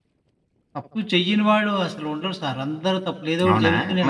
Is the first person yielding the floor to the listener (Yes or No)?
Yes